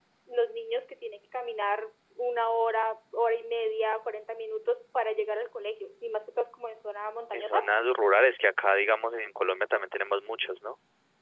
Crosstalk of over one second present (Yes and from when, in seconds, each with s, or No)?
No